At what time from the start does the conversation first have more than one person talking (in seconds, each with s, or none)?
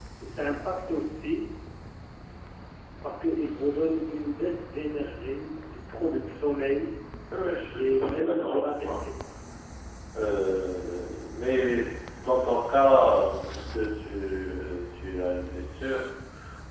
7.7 s